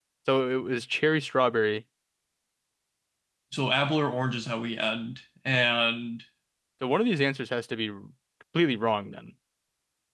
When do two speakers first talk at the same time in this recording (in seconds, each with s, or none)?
none